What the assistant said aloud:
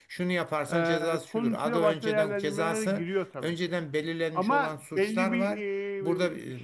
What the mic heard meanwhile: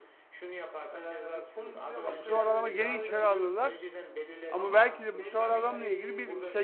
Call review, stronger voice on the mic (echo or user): user